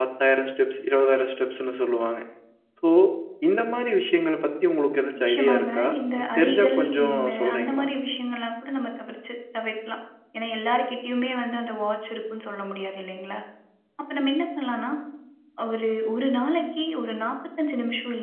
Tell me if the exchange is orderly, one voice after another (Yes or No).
No